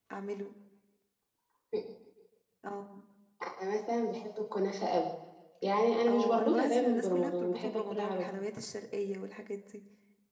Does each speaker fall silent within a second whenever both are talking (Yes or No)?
No